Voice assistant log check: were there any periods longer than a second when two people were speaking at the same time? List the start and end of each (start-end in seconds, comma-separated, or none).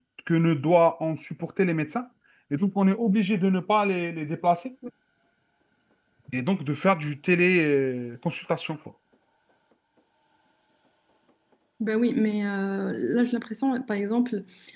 none